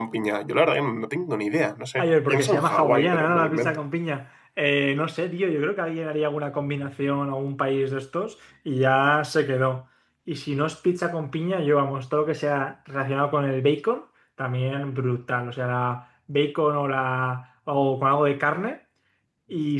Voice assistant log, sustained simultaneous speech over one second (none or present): present